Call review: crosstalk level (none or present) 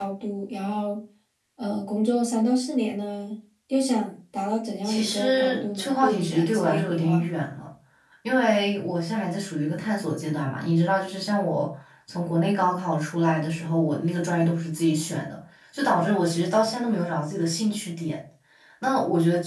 present